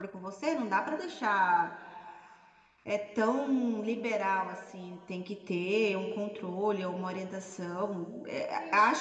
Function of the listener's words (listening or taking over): listening